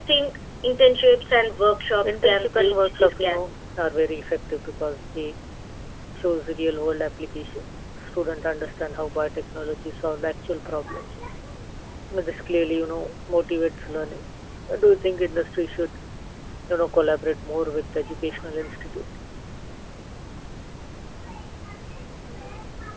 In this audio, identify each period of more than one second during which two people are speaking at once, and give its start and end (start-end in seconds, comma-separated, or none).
2.0-3.4